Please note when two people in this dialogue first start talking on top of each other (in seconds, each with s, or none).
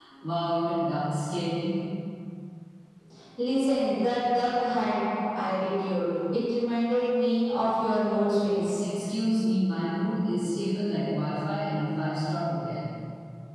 none